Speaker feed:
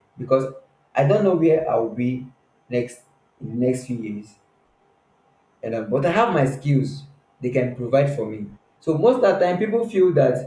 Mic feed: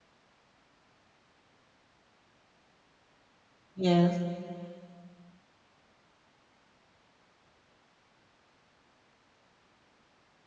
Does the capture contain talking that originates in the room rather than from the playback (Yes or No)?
Yes